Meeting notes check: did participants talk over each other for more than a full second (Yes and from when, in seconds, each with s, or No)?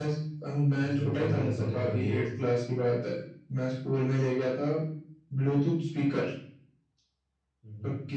Yes, from 0.8 s